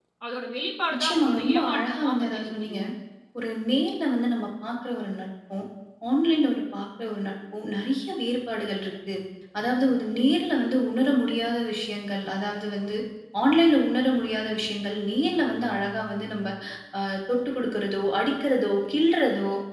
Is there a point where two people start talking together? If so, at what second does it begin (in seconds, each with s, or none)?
0.9 s